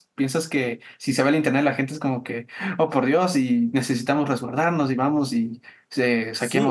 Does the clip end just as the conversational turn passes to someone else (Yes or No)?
Yes